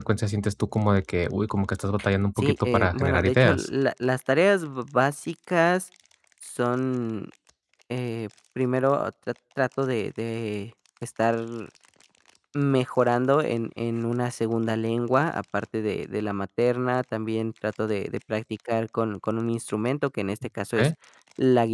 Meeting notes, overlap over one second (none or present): present